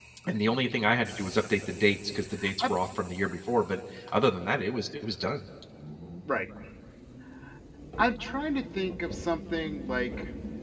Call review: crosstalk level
none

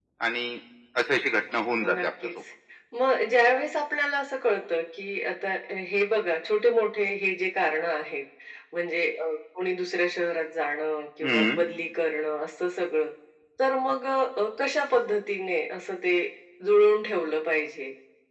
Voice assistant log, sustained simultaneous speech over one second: none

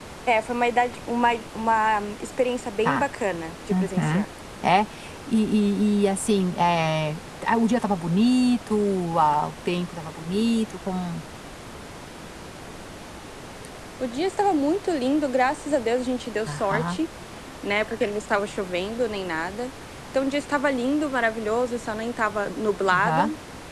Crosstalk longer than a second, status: none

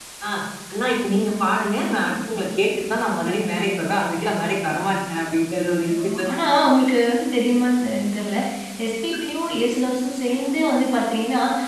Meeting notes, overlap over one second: none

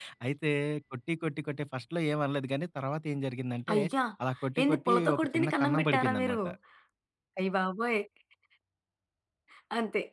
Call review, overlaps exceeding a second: present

